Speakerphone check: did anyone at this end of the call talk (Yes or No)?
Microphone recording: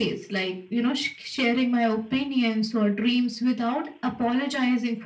No